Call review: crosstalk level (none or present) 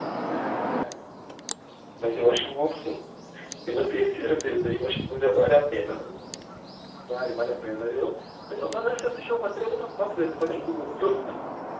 none